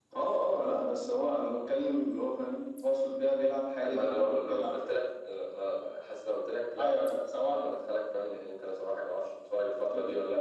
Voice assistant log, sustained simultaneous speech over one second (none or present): present